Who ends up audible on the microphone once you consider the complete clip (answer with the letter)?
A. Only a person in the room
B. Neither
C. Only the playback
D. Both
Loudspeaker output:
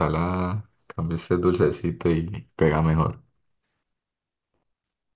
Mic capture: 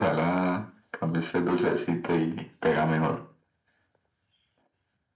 C